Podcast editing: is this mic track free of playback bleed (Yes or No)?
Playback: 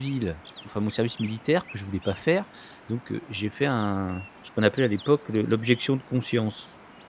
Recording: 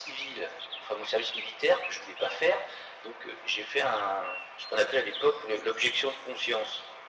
No